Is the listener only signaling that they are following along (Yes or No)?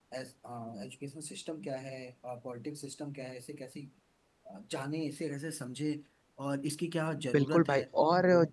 No